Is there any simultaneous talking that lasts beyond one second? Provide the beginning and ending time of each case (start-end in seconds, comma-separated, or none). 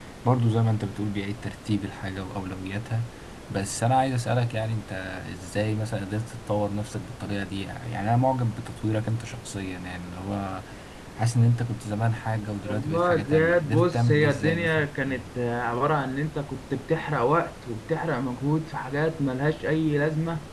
12.7-14.9